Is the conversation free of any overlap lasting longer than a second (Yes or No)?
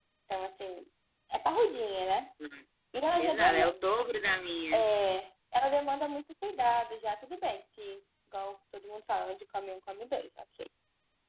Yes